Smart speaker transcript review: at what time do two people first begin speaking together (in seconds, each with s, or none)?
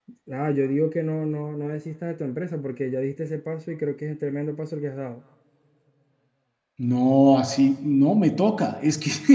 none